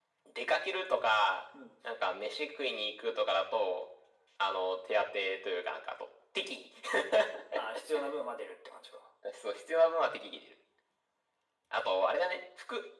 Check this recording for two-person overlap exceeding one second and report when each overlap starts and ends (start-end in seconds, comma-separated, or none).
none